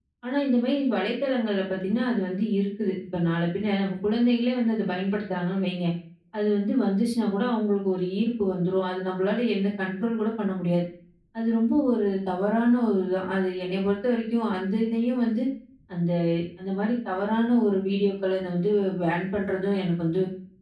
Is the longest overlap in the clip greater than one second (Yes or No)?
No